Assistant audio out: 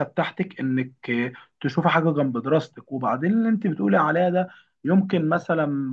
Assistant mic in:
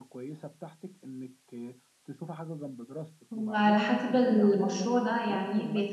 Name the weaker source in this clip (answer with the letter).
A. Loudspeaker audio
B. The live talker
A